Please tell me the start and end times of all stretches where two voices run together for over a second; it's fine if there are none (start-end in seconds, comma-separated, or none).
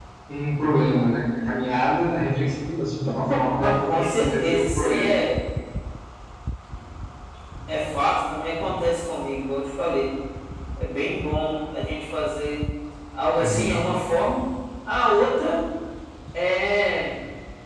3.6-5.1